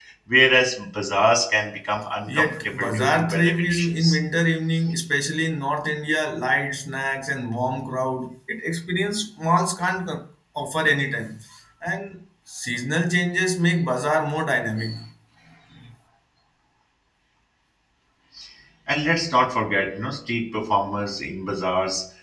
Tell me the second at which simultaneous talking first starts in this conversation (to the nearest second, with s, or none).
2 s